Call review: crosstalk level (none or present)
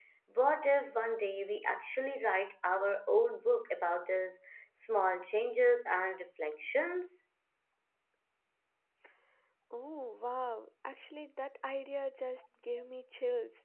none